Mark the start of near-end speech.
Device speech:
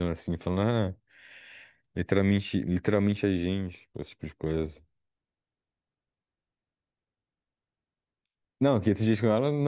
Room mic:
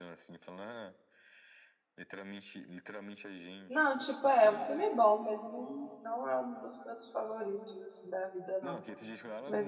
4 s

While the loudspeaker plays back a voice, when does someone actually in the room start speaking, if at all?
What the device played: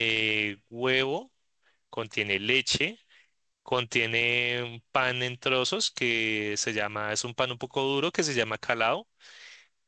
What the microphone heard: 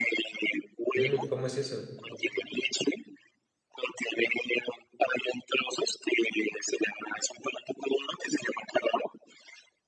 1 s

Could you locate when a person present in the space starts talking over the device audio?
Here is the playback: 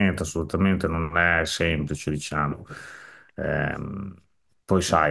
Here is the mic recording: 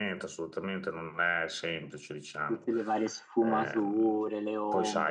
2 s

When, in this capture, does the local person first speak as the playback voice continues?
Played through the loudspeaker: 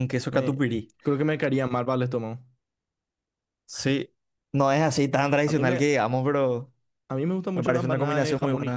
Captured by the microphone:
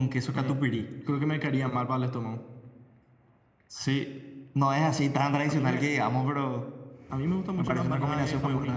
none

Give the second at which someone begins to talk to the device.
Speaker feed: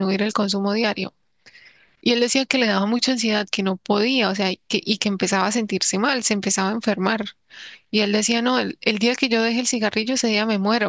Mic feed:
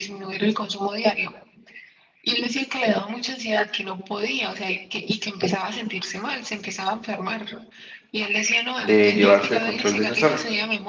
9 s

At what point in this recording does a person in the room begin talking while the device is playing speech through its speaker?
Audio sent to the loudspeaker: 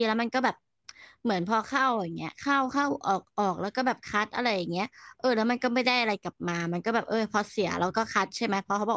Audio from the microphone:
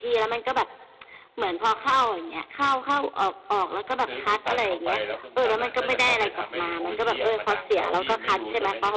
4 s

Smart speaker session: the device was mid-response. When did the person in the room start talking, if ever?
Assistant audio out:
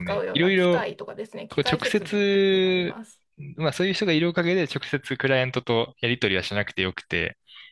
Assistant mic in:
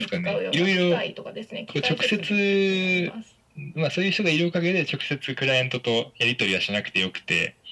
none

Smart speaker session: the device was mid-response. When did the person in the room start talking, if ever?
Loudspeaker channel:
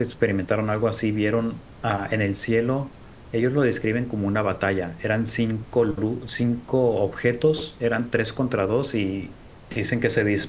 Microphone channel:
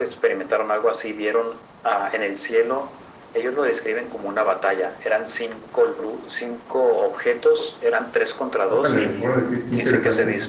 9 s

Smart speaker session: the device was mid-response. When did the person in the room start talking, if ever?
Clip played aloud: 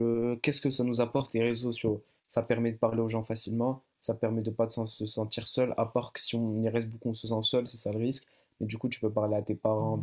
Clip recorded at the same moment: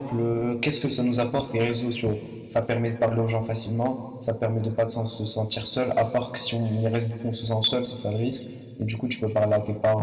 none

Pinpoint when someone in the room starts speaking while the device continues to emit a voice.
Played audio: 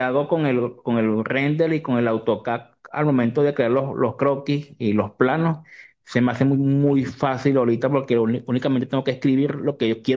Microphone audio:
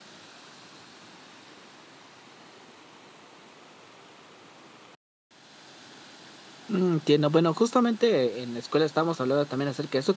7 s

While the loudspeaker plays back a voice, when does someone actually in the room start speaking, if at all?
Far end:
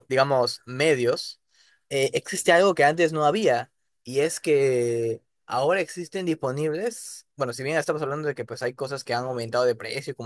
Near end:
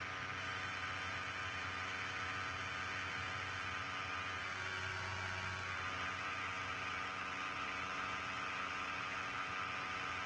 none

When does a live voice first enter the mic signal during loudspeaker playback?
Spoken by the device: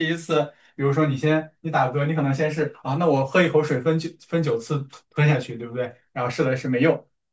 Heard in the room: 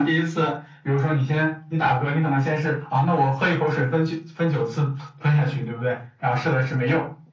none

